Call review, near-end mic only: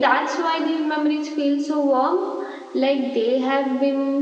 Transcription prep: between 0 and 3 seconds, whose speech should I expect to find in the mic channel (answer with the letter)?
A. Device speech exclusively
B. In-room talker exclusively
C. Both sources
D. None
A